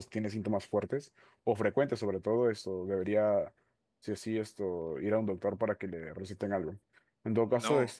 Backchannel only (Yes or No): Yes